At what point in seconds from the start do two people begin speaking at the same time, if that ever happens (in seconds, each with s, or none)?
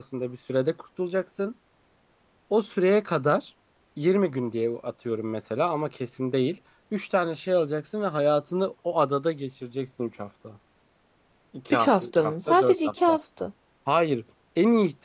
11.7 s